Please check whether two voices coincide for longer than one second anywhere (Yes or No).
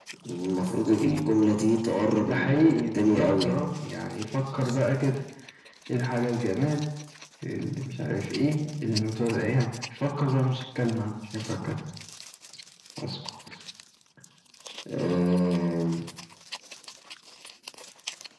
Yes